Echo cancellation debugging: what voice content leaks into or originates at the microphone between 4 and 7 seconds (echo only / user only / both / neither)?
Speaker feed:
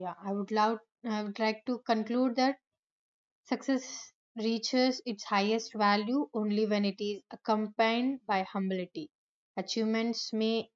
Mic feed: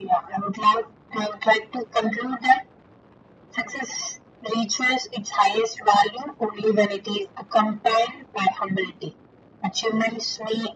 echo only